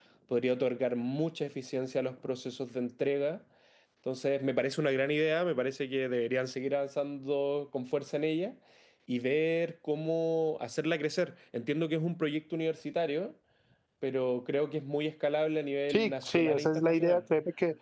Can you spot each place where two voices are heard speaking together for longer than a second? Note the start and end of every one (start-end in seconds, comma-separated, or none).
15.9-17.2